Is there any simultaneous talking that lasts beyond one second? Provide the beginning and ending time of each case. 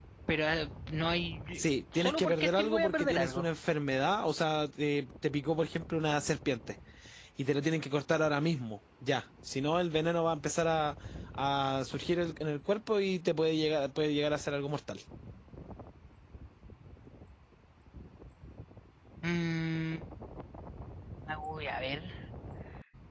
1.9-3.5

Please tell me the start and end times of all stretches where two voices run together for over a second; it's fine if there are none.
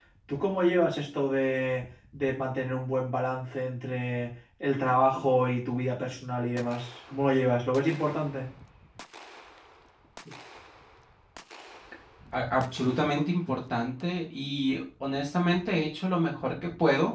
none

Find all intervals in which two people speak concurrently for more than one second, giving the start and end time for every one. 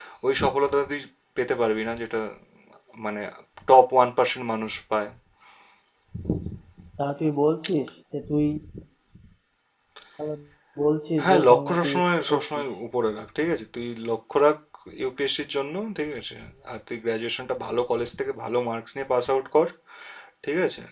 11.2-12.6

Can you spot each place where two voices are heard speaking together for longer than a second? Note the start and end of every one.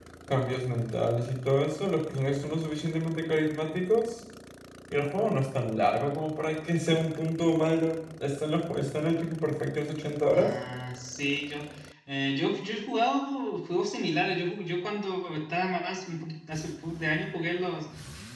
none

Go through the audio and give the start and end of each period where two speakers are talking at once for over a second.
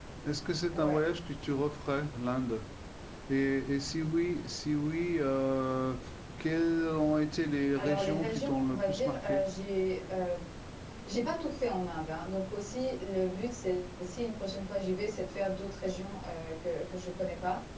7.8-9.4

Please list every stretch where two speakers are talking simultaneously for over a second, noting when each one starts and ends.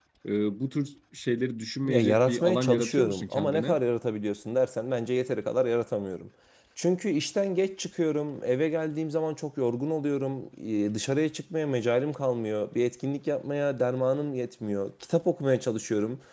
1.9-3.8

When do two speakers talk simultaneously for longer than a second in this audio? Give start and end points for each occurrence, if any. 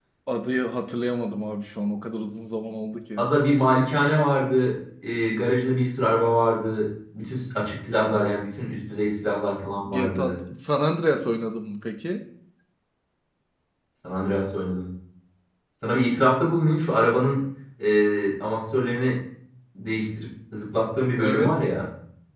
none

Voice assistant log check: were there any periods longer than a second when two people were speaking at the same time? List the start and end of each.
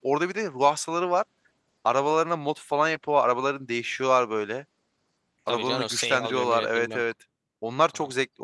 5.5-7.0

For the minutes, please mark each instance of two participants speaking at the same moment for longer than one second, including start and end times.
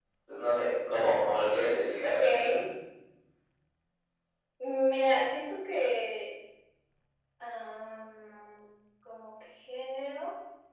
none

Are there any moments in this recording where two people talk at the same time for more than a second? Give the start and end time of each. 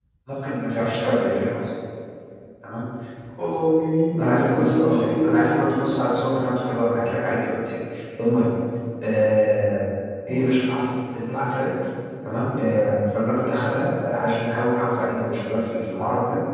4.2-6.0

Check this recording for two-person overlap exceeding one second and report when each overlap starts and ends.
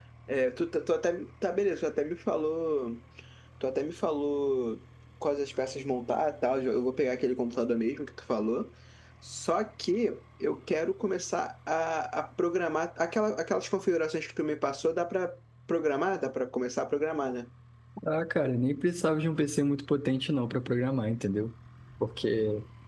none

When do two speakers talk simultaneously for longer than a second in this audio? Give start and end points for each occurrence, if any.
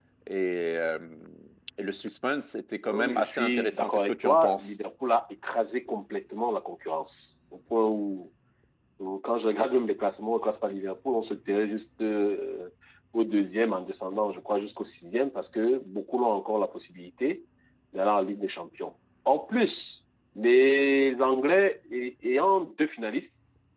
2.9-4.8

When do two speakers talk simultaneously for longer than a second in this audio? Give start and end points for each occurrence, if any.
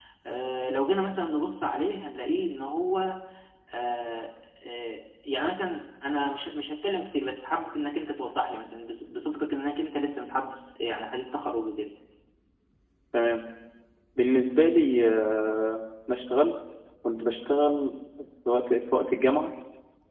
none

